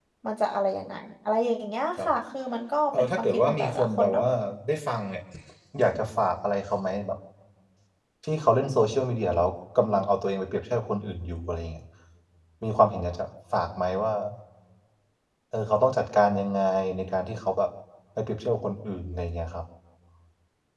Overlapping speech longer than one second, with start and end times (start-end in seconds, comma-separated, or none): 2.9-4.2